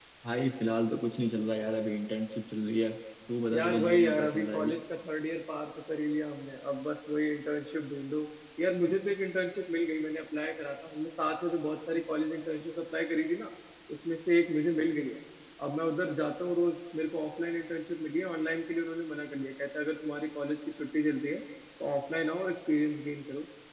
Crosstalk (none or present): present